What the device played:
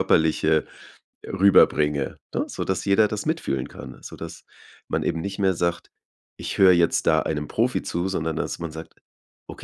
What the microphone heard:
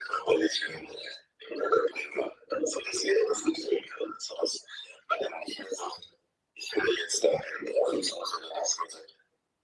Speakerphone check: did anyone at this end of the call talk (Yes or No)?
No